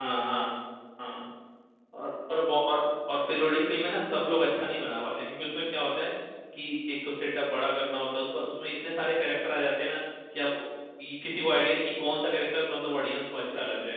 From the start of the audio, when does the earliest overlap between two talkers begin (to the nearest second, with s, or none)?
none